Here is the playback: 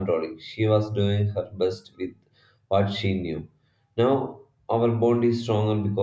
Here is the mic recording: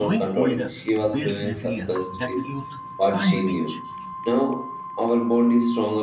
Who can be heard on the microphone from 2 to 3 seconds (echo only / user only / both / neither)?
both